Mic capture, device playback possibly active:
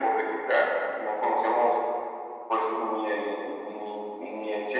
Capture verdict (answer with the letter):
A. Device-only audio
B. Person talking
A